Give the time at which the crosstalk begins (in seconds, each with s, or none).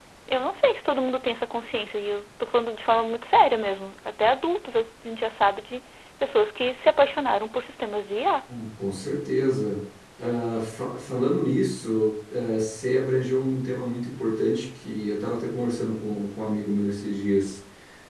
none